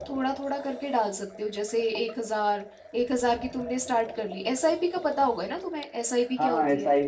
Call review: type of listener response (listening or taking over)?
taking over